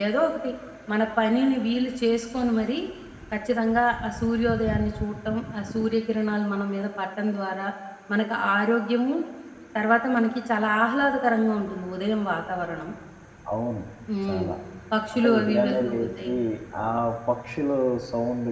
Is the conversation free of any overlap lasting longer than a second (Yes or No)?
No